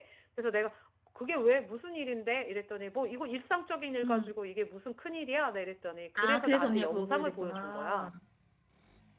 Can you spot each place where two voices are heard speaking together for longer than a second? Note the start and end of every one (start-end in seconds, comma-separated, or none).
6.2-8.1